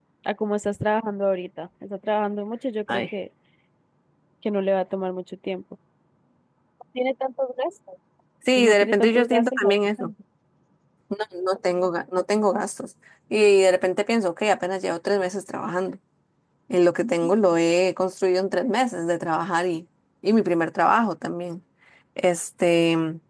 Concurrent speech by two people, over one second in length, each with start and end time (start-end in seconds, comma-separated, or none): 8.6-10.0